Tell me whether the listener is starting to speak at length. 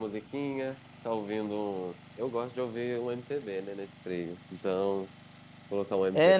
Yes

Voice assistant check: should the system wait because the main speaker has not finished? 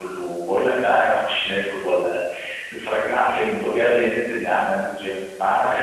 Yes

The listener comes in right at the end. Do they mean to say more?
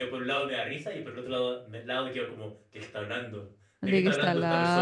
Yes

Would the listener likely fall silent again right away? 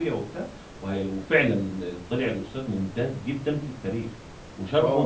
No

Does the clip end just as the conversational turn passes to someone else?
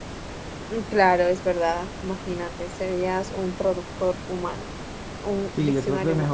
Yes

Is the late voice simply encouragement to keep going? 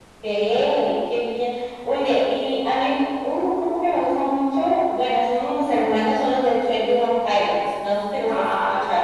No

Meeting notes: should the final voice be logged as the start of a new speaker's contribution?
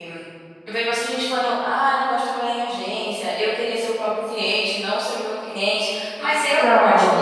No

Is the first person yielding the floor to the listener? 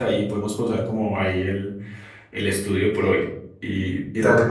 Yes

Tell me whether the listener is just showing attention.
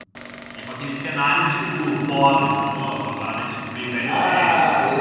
No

